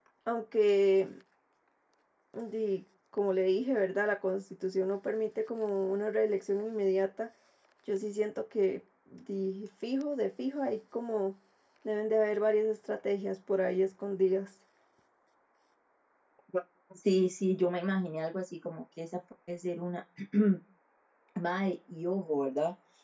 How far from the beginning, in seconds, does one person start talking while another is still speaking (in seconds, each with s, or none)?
none